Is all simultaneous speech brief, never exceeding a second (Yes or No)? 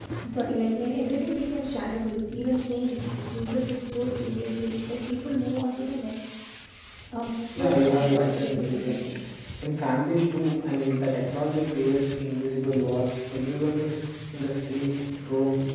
No